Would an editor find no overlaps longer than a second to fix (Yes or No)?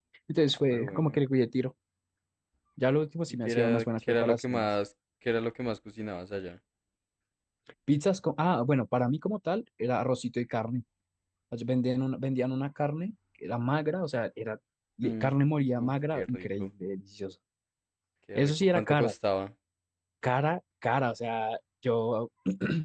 No